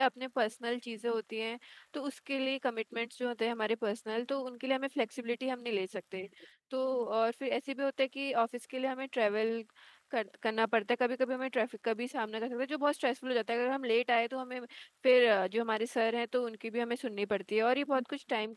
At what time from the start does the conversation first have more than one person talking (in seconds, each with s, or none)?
none